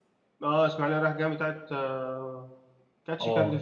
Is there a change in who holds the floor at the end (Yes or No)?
Yes